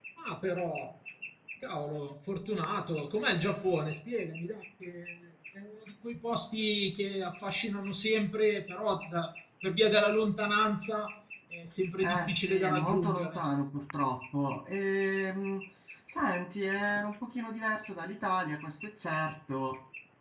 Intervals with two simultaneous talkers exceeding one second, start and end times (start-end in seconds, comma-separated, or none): 12.0-13.4